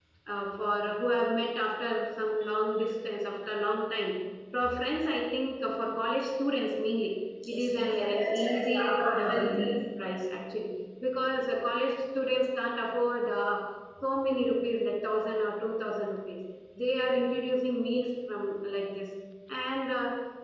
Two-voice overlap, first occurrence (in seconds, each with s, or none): 7.4 s